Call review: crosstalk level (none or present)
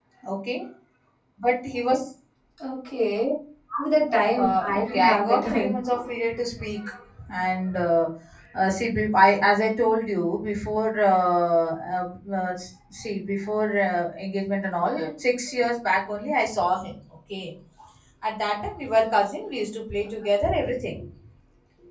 present